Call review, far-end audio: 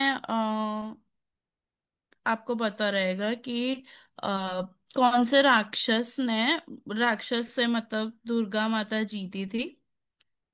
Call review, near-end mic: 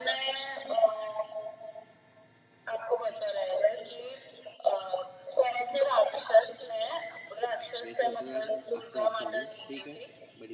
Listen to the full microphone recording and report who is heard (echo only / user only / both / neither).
both